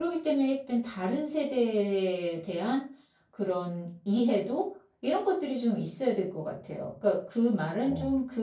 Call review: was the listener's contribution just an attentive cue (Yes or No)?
Yes